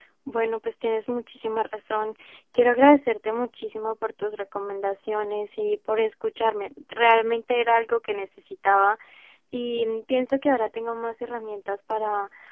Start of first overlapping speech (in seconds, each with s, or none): none